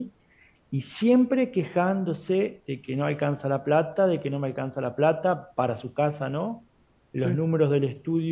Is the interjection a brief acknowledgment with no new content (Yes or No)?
Yes